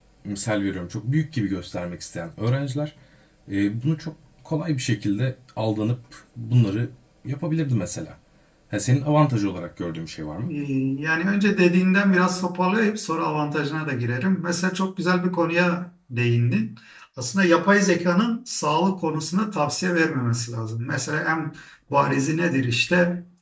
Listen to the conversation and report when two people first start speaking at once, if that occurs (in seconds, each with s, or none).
none